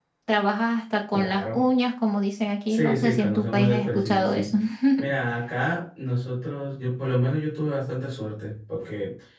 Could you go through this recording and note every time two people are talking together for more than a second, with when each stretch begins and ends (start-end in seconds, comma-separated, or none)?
2.7-4.5